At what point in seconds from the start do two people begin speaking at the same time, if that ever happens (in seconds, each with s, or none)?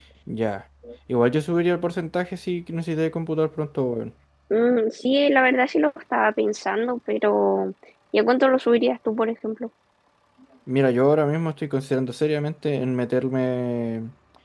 none